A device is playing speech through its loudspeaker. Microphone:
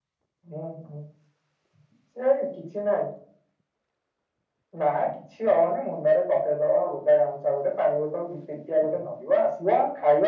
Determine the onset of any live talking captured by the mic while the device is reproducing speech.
none

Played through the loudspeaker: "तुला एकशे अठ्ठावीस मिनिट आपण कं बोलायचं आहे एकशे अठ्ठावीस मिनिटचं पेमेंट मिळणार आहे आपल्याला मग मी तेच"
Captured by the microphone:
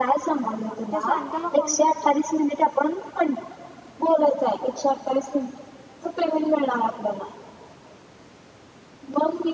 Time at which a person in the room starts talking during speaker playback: 0.7 s

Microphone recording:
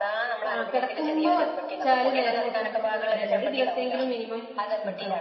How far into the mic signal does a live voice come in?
0.5 s

